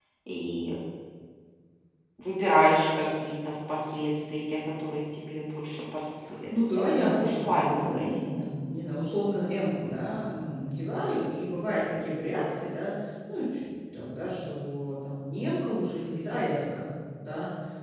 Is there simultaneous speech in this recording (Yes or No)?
Yes